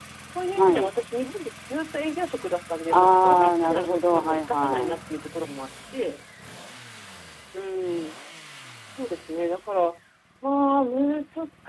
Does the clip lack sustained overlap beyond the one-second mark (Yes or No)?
No